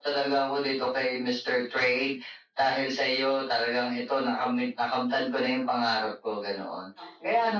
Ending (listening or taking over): listening